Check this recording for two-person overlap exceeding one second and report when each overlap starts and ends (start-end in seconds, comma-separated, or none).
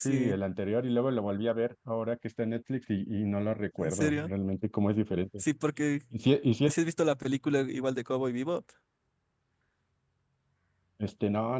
none